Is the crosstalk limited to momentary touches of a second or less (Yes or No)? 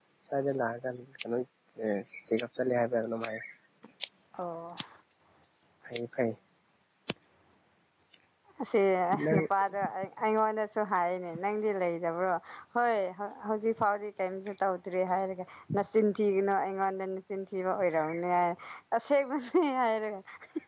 Yes